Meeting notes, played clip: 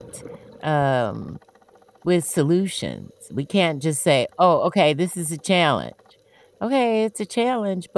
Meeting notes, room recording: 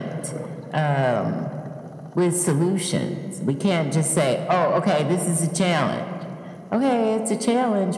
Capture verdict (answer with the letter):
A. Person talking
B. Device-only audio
B